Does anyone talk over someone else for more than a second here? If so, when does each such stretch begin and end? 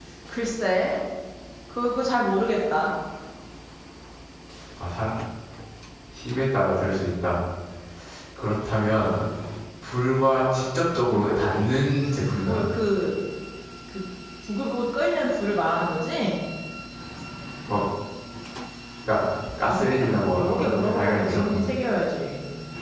19.6-21.5

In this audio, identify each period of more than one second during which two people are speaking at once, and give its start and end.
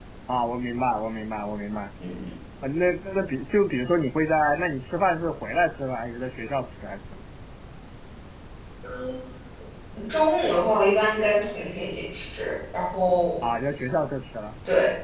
none

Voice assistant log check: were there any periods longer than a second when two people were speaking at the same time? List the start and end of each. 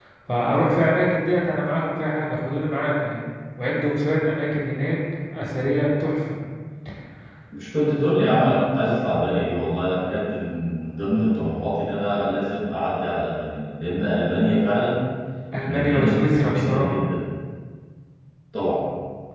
15.7-17.0

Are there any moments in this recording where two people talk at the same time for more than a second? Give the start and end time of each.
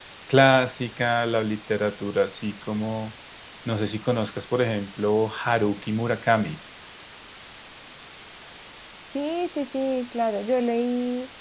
none

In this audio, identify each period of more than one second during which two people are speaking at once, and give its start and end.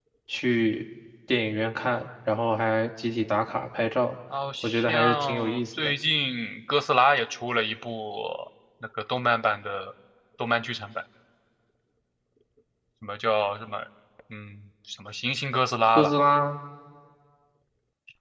4.6-5.9

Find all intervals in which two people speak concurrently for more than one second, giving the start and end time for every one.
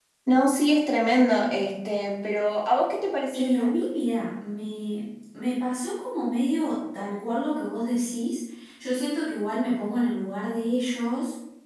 none

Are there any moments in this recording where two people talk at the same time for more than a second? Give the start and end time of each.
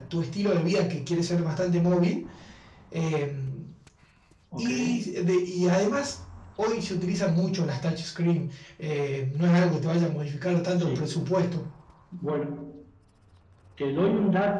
none

